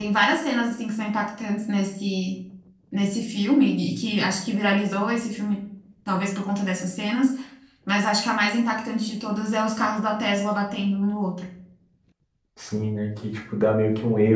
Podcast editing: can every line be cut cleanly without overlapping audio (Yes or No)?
Yes